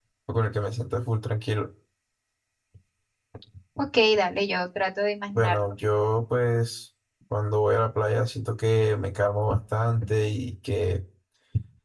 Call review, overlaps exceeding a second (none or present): none